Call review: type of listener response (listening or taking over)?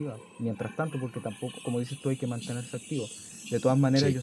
listening